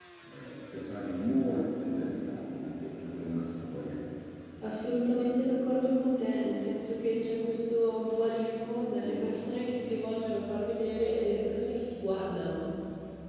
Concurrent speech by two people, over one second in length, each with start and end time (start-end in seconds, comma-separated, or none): none